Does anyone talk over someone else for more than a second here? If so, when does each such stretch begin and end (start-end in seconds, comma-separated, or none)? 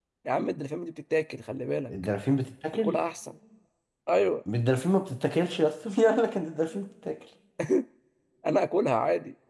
none